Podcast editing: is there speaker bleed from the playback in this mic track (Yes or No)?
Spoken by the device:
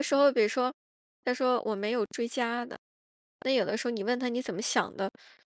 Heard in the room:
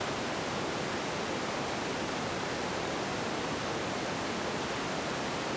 No